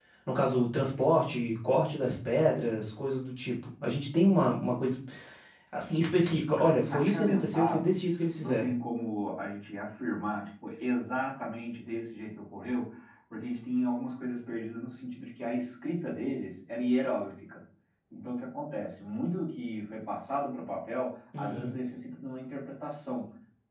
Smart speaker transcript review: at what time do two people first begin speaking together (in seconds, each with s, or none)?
6.5 s